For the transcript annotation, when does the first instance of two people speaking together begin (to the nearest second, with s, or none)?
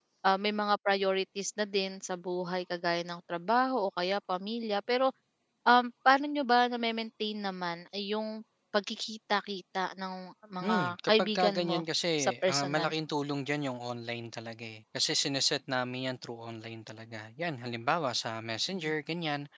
11 s